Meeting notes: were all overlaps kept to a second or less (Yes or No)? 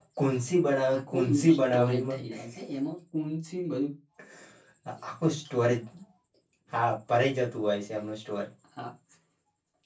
No